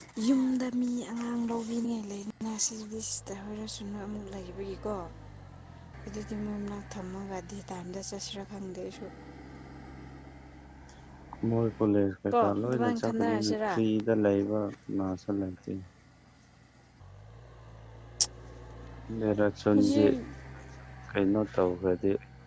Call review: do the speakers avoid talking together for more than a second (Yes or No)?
No